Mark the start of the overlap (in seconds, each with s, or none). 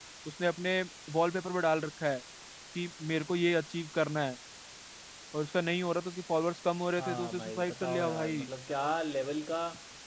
7.0 s